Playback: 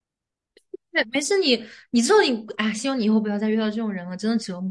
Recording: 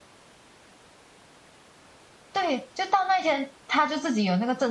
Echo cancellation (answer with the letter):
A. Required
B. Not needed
B